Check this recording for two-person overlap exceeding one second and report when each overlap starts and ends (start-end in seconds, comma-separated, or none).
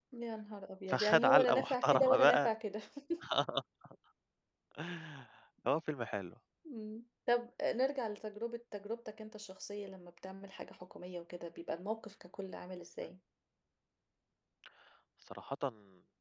0.9-2.4